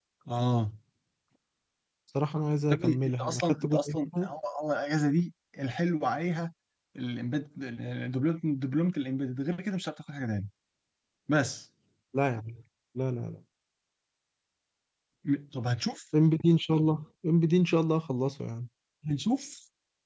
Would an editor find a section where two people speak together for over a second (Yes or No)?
Yes